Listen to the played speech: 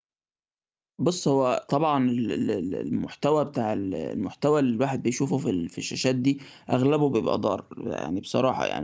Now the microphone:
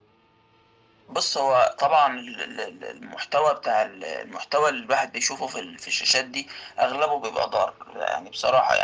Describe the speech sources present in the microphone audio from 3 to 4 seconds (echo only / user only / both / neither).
echo only